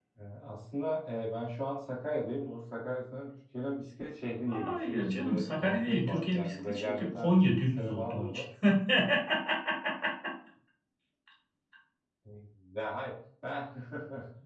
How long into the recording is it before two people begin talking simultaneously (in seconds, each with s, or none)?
4.5 s